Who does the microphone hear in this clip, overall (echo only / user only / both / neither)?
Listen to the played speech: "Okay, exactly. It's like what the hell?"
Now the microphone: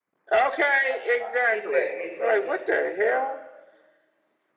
both